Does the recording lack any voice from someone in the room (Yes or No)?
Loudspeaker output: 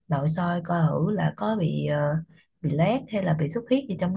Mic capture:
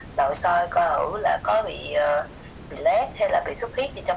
Yes